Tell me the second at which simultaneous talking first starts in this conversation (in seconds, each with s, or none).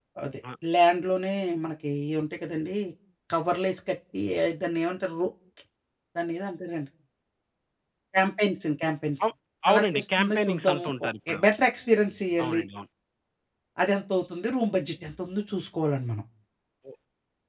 9.7 s